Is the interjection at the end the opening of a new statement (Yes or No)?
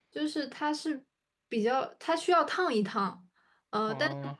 No